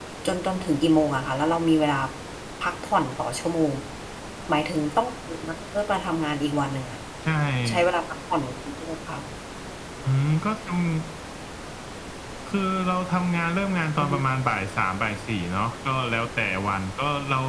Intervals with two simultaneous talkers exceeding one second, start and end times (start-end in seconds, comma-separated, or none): none